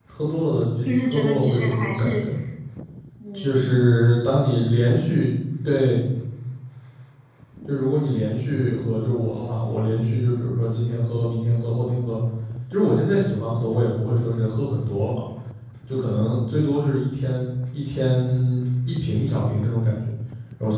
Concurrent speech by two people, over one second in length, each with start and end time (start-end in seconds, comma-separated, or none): 1.0-2.2